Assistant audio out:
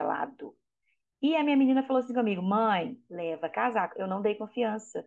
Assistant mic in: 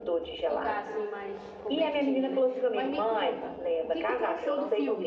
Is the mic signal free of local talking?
No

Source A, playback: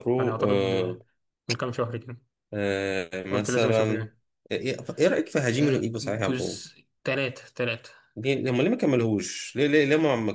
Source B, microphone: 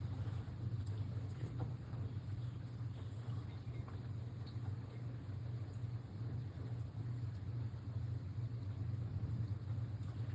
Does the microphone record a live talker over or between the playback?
No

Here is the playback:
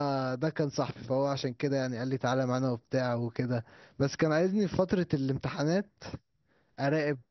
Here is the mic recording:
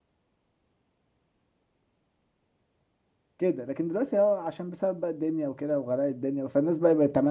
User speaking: Yes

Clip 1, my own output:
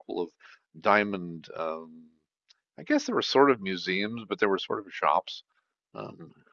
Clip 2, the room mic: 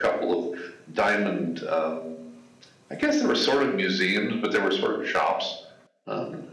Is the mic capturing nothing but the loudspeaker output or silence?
Yes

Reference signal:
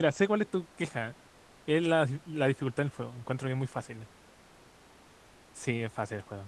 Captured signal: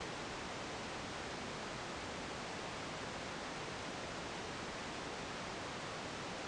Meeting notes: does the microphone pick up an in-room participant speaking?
No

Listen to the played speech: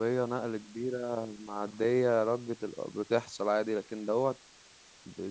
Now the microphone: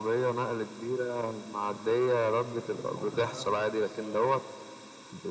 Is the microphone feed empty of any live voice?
No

